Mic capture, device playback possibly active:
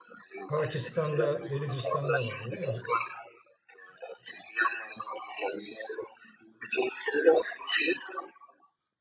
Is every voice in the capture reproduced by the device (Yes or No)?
No